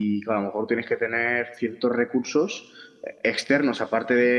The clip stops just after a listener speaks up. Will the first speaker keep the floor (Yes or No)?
Yes